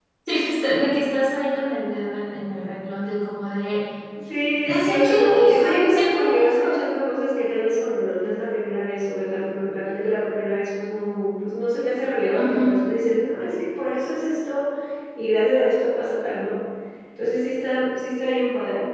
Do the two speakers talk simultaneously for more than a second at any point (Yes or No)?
Yes